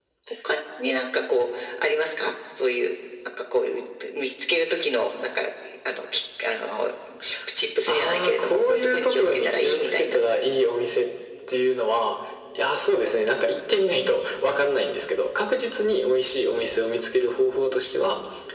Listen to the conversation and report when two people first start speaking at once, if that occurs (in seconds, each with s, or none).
7.9 s